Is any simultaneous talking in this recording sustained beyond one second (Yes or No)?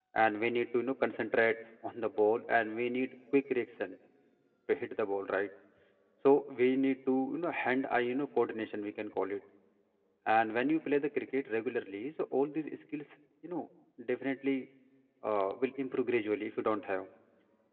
No